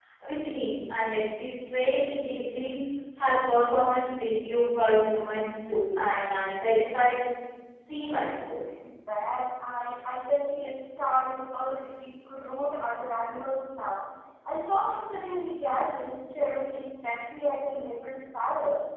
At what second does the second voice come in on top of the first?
none

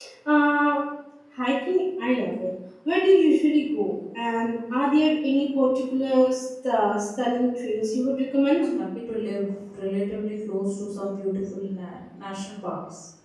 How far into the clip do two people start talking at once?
none

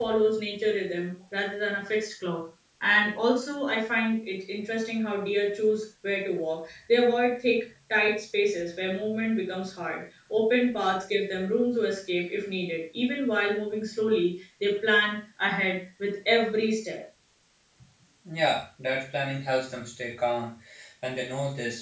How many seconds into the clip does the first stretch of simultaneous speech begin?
none

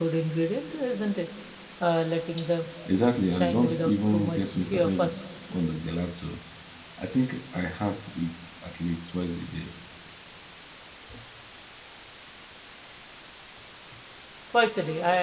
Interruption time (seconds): 3 s

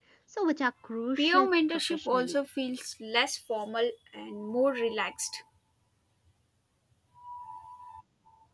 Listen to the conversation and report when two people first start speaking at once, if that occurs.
1 s

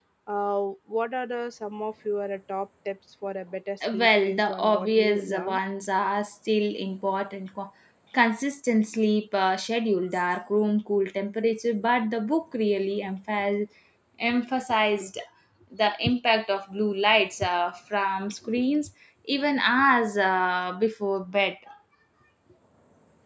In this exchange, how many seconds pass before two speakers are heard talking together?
4 s

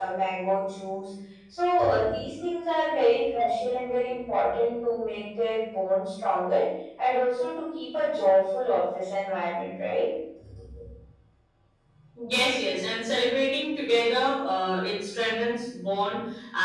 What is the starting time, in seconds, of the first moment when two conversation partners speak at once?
none

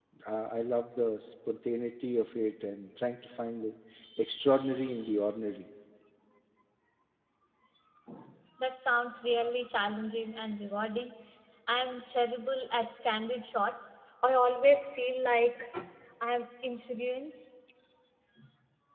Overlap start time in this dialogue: none

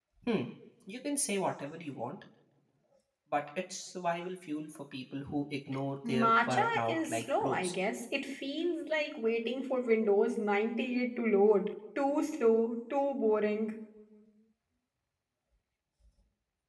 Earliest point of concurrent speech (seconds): 6 s

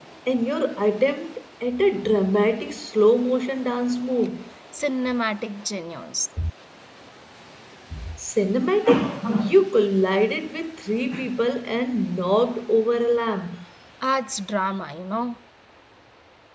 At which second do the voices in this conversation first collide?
none

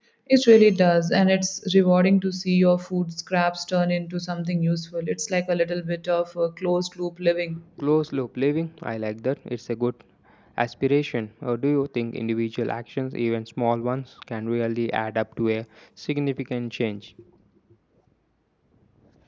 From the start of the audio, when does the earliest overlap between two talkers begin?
none

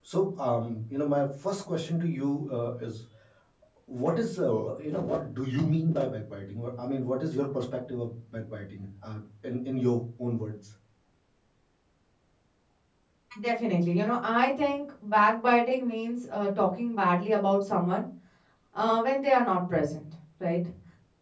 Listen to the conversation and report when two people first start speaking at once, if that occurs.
none

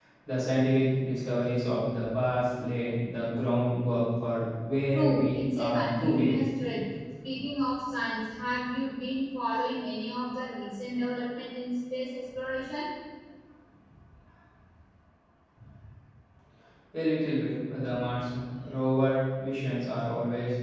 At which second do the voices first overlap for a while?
5 s

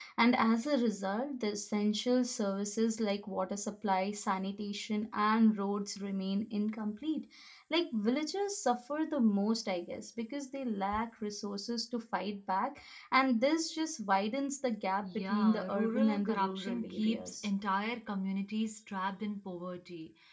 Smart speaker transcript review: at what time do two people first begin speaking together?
15 s

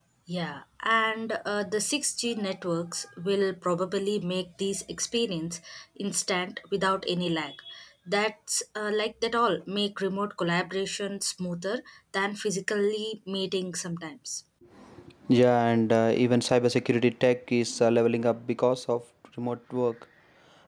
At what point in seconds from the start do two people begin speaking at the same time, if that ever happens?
none

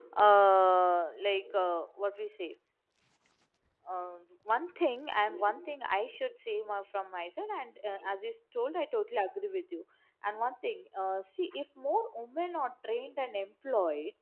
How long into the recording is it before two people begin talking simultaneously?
none

